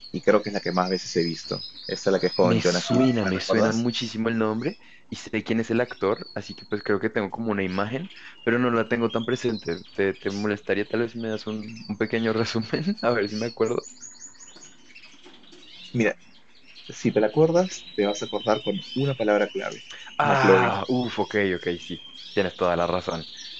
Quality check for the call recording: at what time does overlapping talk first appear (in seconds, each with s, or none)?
2.4 s